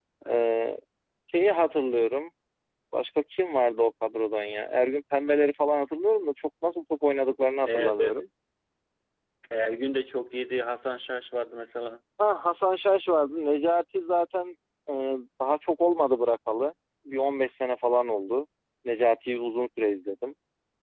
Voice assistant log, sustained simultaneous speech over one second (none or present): none